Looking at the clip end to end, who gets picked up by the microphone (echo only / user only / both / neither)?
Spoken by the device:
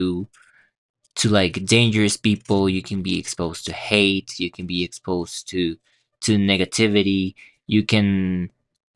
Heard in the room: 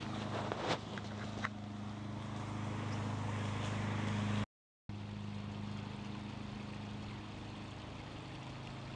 neither